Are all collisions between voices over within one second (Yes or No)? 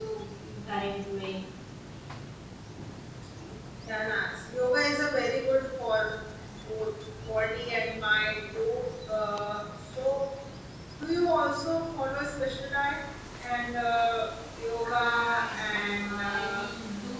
No